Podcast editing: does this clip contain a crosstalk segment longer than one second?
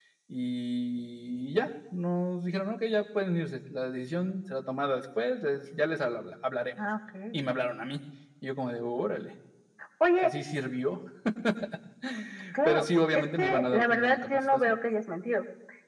Yes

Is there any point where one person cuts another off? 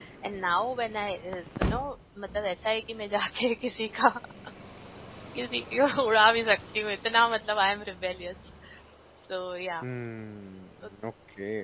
No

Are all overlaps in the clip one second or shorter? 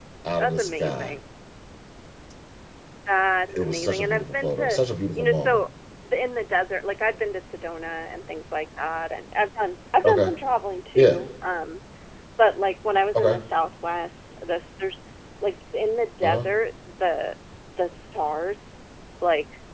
No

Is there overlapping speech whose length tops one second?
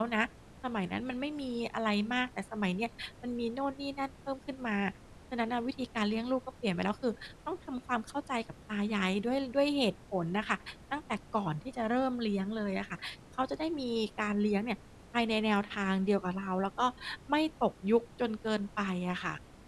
No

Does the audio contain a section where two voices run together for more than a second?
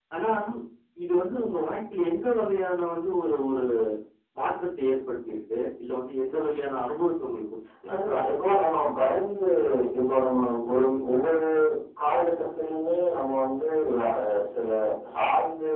No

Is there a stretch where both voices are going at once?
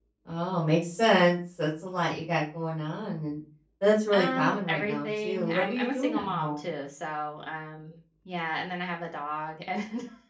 Yes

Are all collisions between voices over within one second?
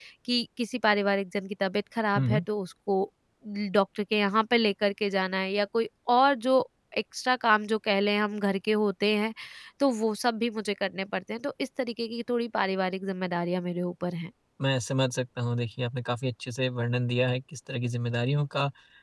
Yes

